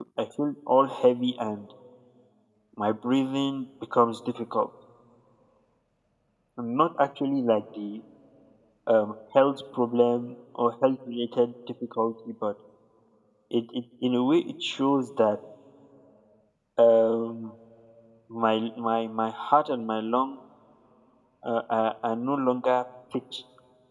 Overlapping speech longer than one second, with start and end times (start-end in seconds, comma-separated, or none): none